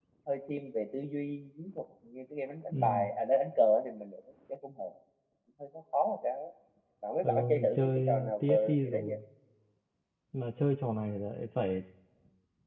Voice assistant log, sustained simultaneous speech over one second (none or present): present